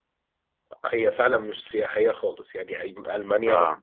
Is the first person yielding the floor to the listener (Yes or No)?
No